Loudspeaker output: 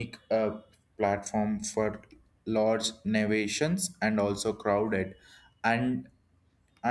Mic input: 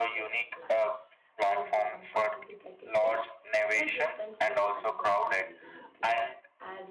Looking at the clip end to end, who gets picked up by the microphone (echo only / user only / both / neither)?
both